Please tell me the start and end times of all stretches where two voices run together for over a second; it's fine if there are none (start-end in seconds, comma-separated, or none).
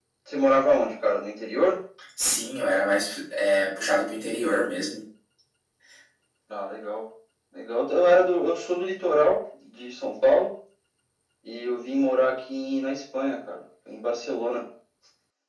none